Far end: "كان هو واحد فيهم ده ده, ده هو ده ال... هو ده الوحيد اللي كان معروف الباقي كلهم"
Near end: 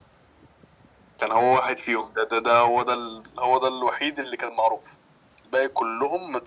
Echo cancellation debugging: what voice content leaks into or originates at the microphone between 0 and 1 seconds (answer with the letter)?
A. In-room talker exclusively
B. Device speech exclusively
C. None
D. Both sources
C